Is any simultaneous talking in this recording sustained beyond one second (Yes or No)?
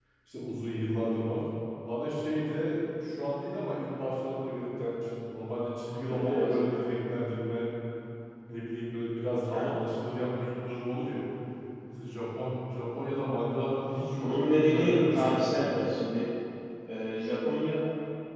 Yes